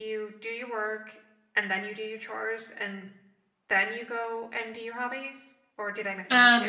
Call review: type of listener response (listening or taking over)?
taking over